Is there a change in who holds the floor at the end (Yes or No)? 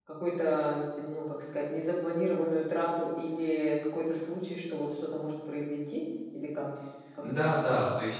Yes